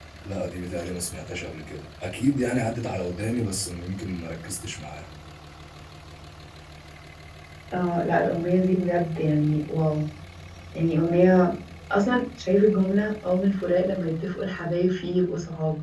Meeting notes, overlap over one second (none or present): none